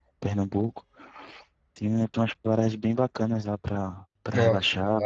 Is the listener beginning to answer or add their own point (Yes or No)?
Yes